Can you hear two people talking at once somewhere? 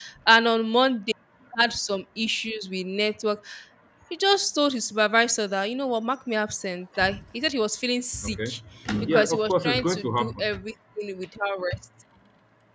Yes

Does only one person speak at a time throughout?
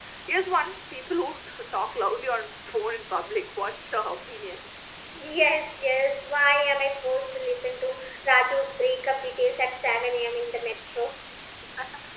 Yes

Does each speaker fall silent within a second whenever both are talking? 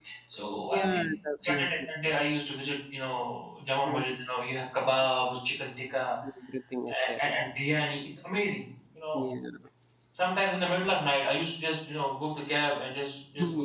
Yes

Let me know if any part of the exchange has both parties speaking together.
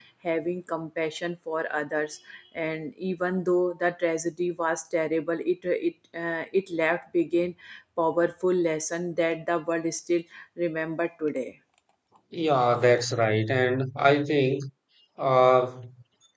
No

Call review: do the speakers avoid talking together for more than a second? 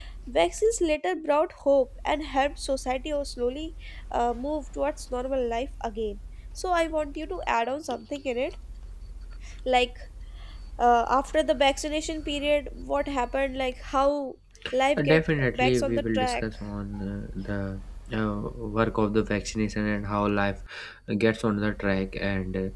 No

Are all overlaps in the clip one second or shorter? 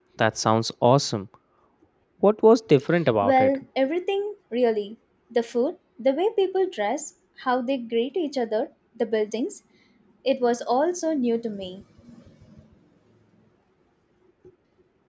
Yes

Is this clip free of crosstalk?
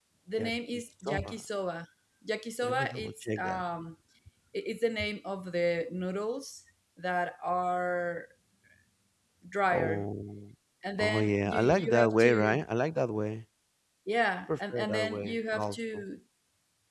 No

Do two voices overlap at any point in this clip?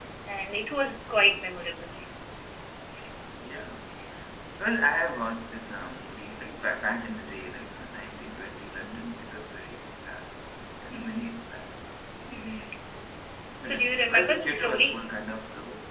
Yes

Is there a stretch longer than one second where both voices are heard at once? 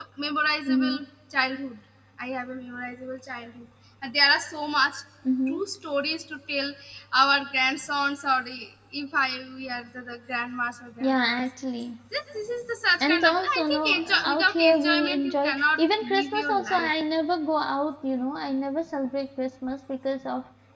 Yes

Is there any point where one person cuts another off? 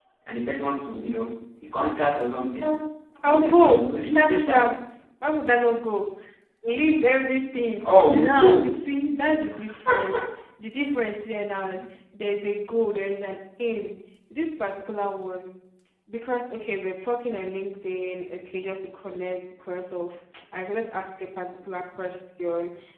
Yes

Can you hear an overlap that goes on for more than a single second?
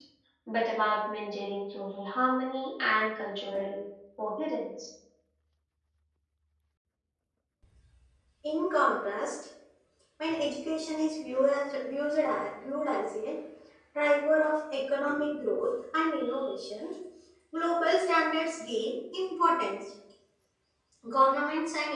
No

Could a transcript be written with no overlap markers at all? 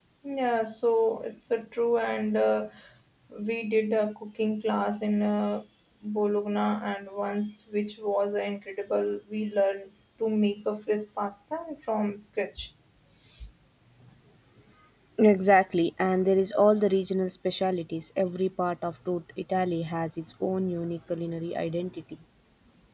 Yes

